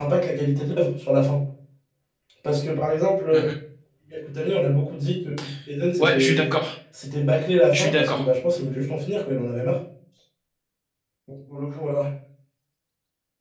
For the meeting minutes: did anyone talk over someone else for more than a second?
No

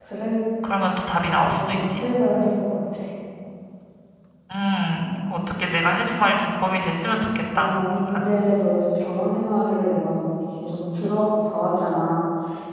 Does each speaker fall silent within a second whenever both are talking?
Yes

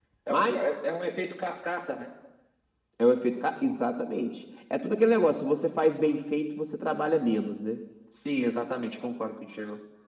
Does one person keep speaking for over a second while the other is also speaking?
No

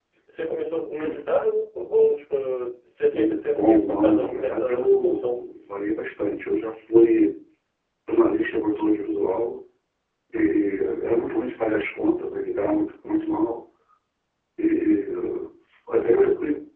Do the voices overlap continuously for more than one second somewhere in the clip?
Yes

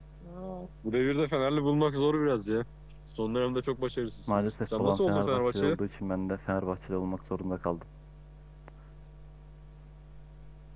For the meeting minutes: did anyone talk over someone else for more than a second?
Yes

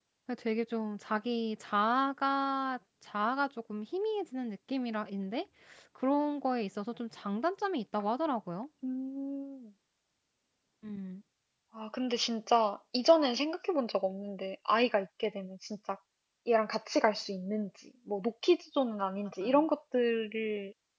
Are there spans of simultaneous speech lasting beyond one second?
No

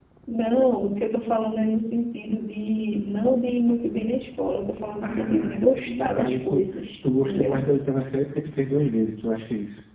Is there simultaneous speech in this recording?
Yes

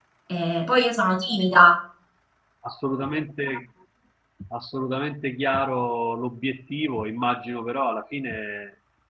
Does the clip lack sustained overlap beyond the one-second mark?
Yes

